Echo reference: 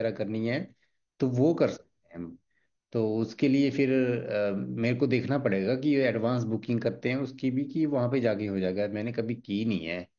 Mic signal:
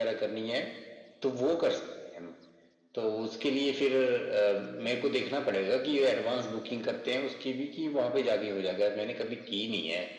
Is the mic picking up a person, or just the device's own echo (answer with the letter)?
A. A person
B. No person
B